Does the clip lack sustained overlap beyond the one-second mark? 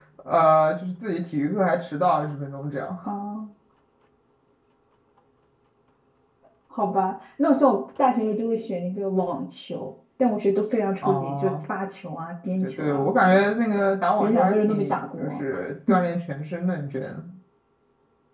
No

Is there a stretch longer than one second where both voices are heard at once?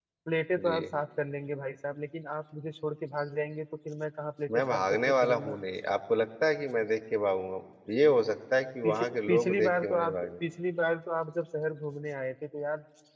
Yes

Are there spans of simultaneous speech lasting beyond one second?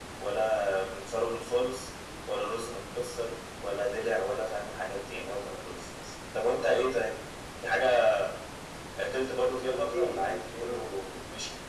Yes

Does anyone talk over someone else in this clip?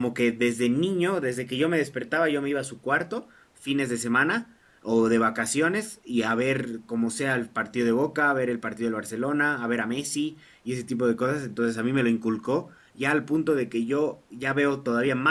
No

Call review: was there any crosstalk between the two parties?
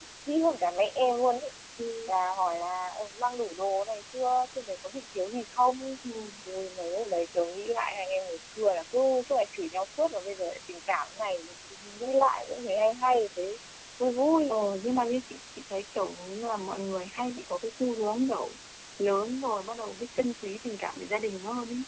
No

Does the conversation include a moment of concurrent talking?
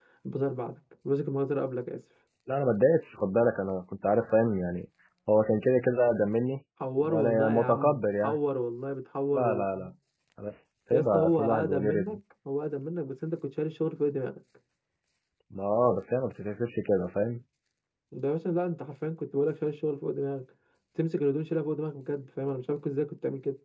Yes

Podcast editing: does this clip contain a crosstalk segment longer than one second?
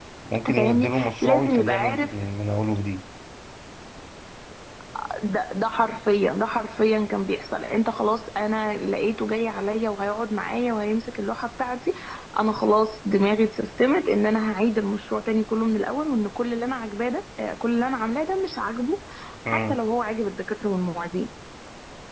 Yes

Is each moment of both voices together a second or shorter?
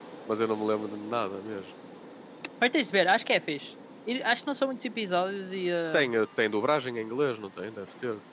Yes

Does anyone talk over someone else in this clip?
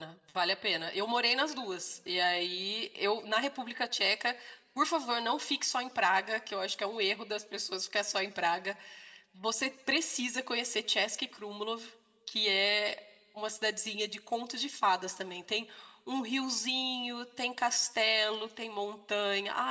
No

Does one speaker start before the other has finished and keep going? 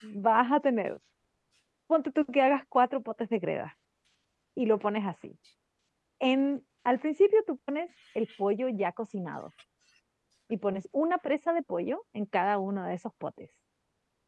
No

